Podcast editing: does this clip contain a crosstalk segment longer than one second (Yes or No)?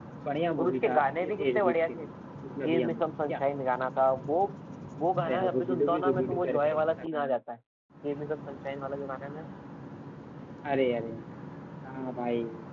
Yes